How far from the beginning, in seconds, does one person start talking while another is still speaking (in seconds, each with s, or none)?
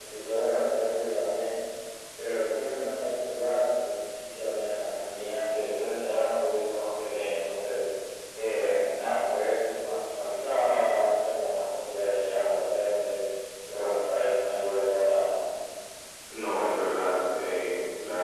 none